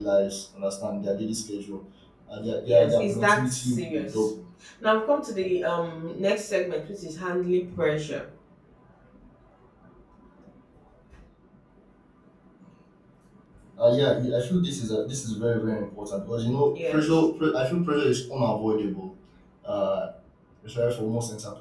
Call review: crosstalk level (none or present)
present